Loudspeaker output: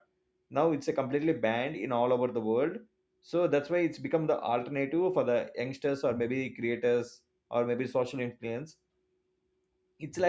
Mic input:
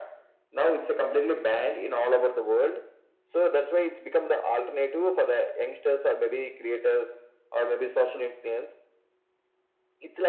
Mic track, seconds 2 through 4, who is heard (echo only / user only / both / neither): echo only